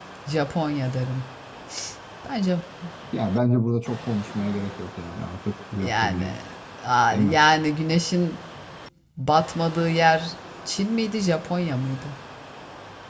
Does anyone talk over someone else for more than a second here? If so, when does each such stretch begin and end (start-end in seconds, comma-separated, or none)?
none